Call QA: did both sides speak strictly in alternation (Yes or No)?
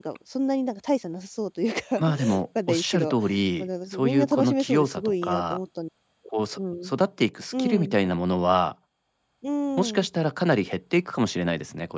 No